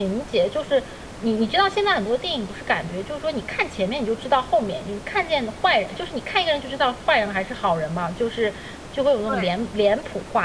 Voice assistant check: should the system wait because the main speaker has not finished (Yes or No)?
Yes